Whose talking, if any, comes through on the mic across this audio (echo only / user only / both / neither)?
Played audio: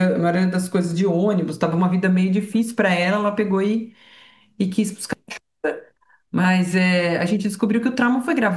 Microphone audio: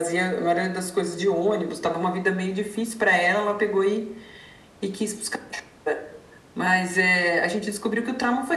echo only